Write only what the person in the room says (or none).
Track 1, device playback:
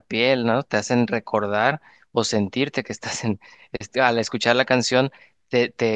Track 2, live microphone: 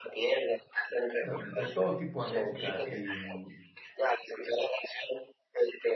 de, de todo tipo de música. Y, mm,